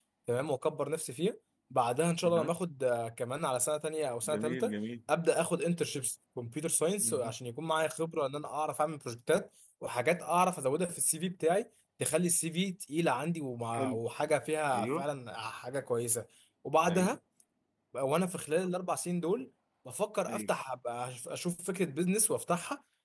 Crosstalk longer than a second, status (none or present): none